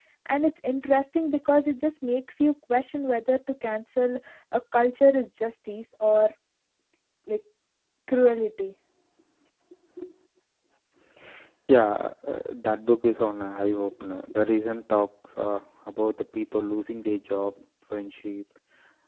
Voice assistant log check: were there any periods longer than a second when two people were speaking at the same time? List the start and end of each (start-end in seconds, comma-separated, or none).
none